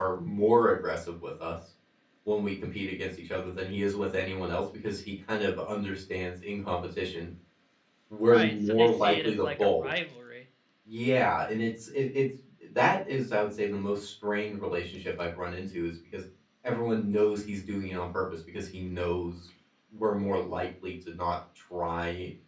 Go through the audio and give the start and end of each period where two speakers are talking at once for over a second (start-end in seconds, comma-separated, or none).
8.3-9.9